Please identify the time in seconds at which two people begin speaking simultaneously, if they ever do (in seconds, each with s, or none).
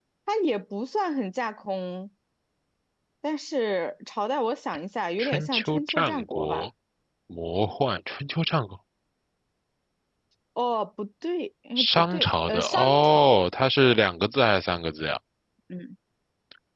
5.2 s